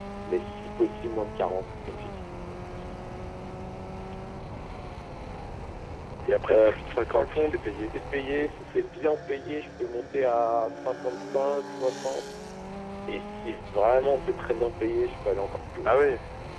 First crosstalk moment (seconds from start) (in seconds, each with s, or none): 6.5 s